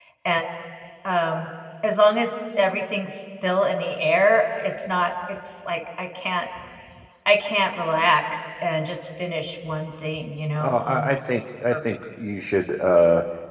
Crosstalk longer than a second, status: none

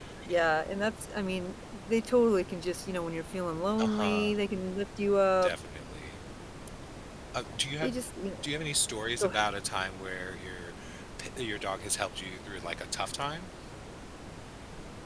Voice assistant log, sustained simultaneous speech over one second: none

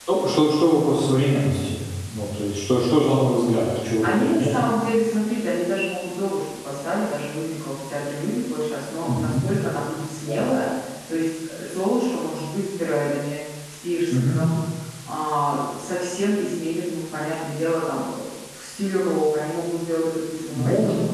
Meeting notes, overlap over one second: none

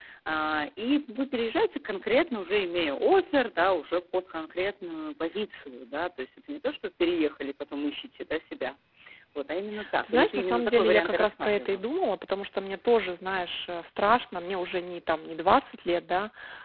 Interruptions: present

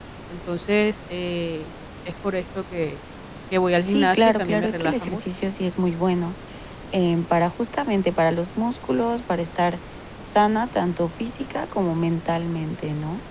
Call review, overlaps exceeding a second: present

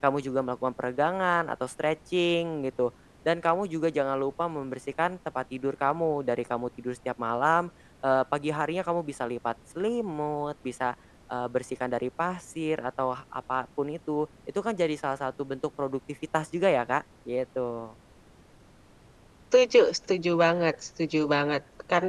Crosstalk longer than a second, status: none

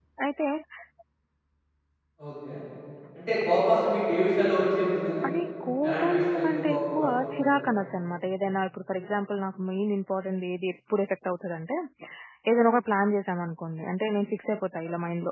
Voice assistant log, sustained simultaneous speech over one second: present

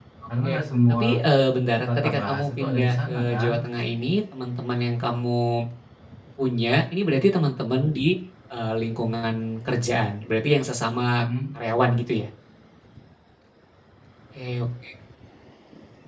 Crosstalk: present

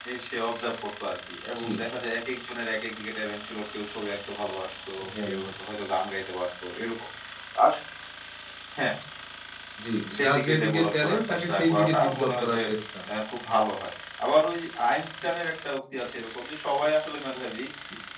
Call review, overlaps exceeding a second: present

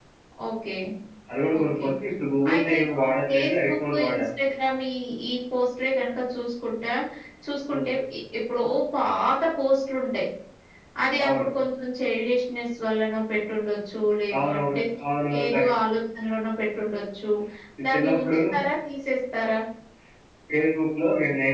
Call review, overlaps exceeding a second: present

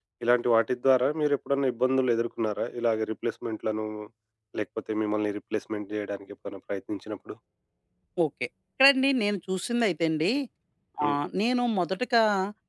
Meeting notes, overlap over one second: none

